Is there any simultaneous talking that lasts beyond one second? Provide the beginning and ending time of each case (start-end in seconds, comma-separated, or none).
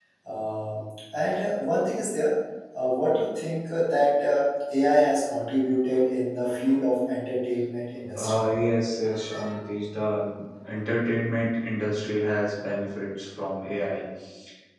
none